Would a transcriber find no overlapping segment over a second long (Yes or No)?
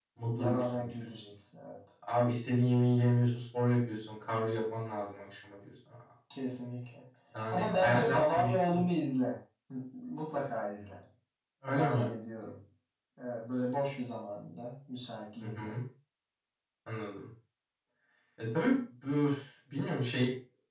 No